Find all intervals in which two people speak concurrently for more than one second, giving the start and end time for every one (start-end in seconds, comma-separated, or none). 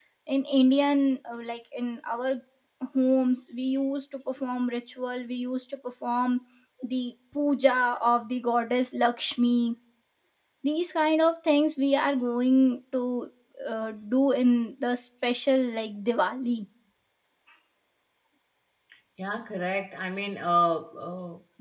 none